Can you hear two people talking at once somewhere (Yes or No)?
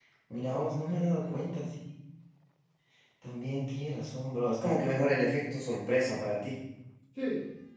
Yes